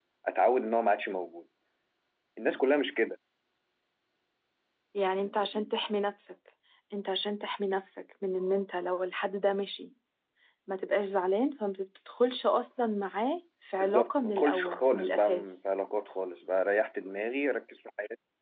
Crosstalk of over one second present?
Yes, from 13.8 s

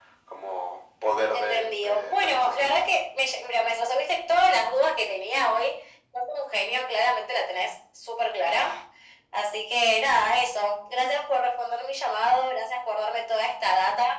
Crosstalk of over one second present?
Yes, from 1.3 s

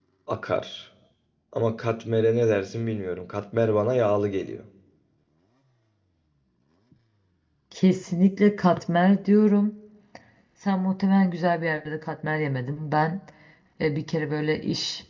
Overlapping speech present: No

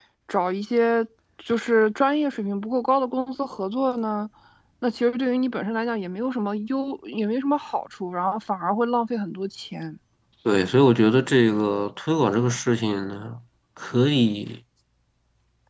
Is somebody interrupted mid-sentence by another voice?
No

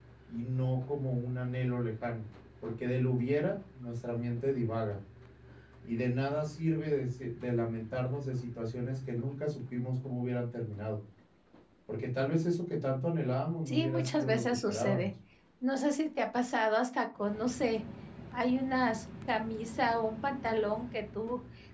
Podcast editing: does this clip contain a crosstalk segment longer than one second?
Yes, from 13.7 s

